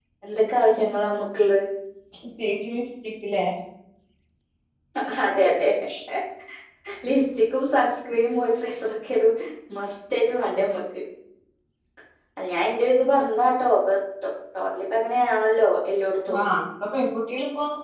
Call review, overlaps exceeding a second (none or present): none